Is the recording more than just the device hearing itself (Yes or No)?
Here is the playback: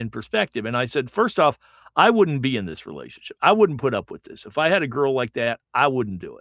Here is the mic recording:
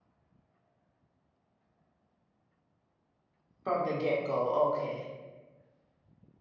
Yes